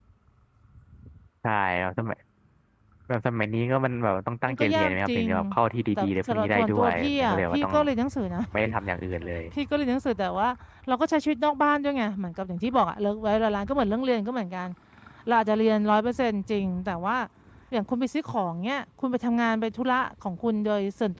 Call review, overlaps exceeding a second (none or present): present